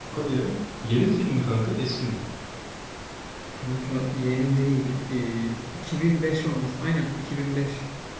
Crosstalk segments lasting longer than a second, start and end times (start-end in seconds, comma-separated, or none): none